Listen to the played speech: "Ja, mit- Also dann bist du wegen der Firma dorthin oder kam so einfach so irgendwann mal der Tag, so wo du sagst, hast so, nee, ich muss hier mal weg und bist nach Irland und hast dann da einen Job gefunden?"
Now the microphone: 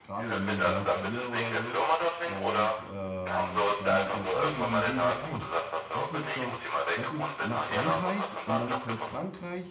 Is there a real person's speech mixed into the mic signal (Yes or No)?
Yes